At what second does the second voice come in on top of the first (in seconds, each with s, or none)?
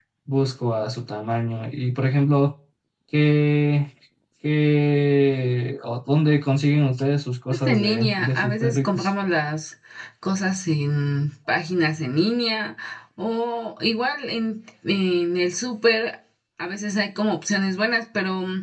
7.5 s